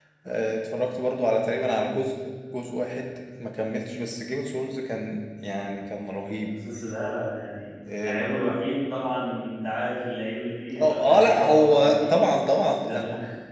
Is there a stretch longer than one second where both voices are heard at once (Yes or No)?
Yes